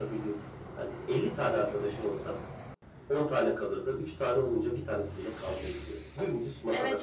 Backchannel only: No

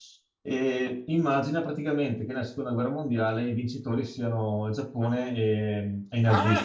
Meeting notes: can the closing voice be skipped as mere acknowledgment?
No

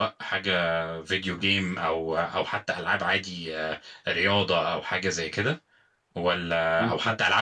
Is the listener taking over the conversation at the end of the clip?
No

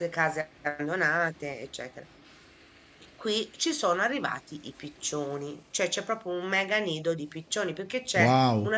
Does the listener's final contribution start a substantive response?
No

